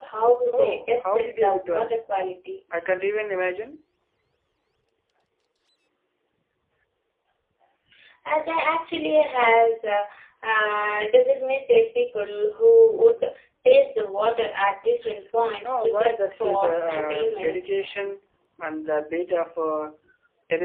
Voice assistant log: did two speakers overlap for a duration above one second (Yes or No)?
Yes